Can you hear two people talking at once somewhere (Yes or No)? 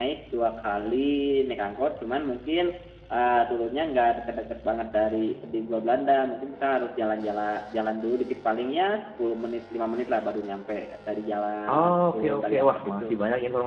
Yes